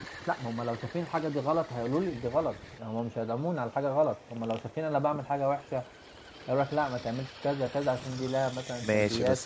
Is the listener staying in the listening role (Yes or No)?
No